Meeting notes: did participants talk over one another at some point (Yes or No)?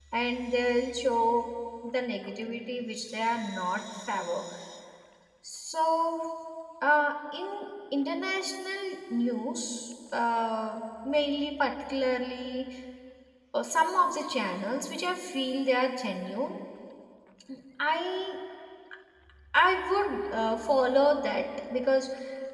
No